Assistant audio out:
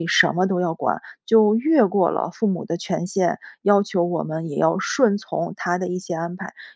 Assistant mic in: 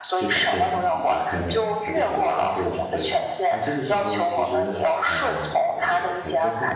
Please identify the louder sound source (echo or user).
echo